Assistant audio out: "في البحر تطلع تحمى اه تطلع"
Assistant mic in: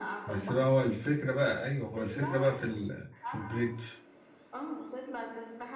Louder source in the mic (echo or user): user